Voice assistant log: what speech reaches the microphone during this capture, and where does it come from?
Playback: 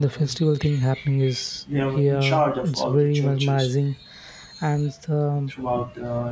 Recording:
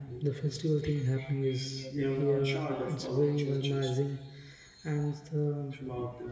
both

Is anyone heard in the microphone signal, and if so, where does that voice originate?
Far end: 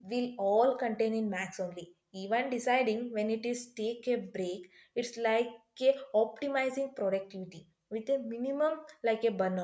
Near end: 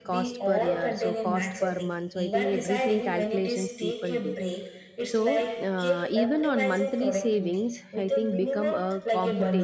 both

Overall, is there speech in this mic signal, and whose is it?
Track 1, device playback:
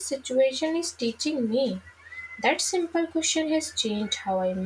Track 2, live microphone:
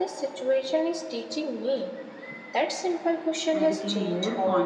both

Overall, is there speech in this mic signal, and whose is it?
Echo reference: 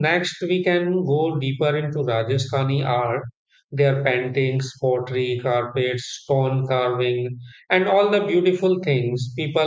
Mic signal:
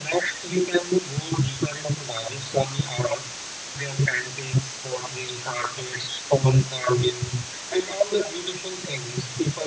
echo only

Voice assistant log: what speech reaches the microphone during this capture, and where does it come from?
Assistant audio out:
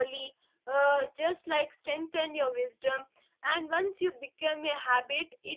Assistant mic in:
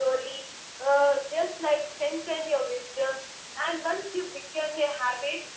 echo only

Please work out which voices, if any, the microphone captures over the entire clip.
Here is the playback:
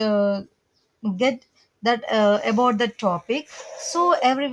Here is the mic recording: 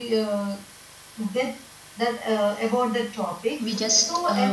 both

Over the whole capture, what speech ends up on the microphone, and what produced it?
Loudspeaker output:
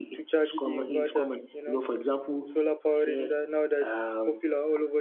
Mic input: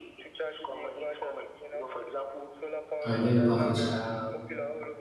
both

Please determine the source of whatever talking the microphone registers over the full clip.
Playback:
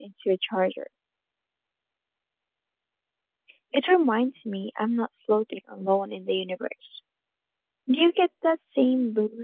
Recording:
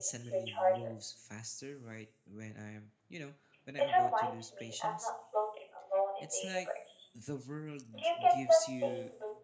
both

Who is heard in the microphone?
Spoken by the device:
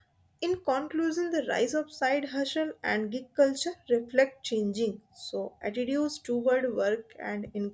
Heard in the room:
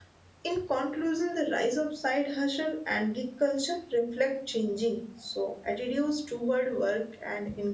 echo only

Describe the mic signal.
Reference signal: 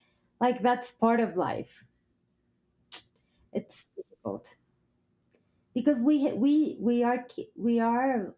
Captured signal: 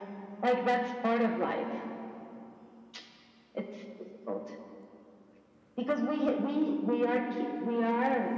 echo only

